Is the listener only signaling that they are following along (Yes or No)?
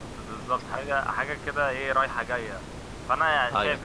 Yes